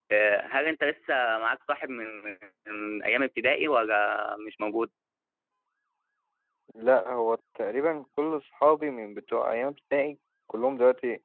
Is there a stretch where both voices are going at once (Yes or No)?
No